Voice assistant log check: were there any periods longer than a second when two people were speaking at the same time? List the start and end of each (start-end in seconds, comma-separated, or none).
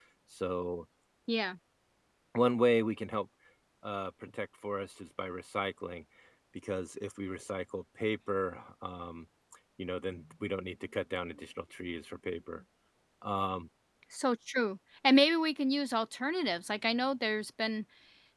none